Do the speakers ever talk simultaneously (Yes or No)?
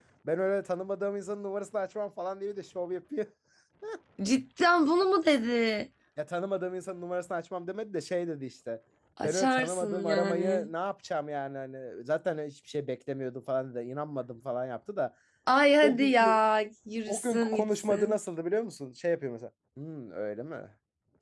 Yes